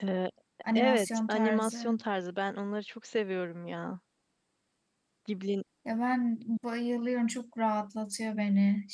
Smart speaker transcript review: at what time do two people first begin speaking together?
1 s

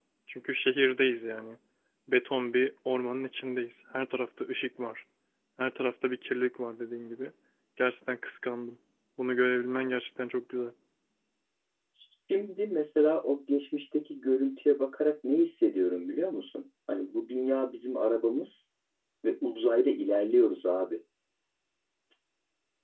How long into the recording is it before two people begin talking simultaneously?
none

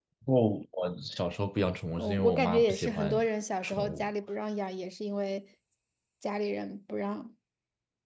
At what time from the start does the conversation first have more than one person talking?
2 s

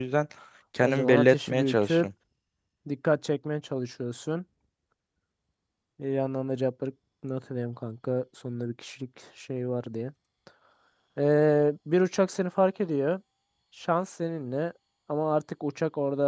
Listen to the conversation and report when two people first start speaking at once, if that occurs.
1 s

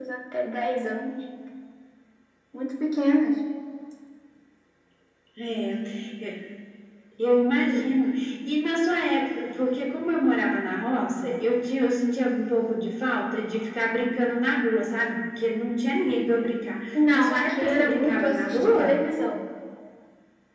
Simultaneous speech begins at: 17 s

